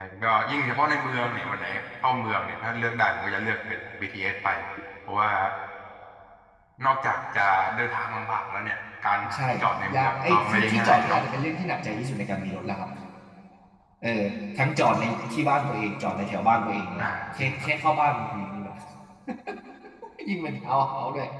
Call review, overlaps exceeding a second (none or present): present